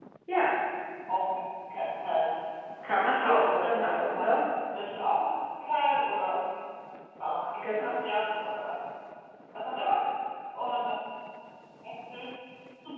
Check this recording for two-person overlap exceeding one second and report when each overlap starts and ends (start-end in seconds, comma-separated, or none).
3.0-4.2